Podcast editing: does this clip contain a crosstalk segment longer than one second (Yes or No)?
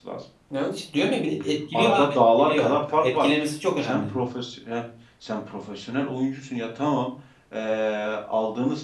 Yes